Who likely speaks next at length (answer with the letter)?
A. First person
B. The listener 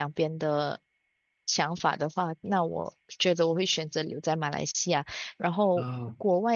A